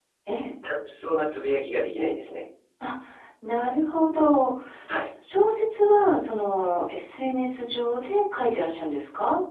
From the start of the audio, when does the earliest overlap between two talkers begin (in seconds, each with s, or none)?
none